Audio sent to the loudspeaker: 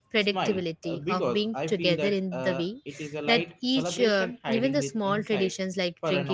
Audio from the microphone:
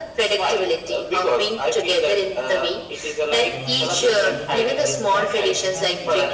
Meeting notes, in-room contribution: present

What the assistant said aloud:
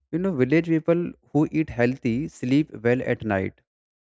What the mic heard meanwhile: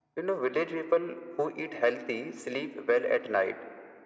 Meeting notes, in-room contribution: none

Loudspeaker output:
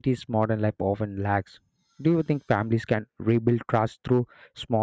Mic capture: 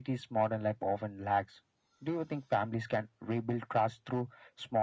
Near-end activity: none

